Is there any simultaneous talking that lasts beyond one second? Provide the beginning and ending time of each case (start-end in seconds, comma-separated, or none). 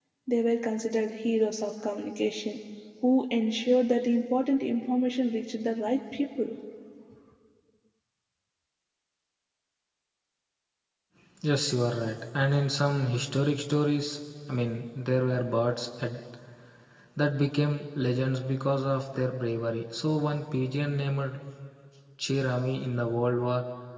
none